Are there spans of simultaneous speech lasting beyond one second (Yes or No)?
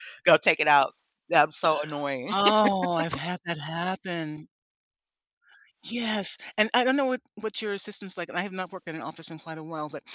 No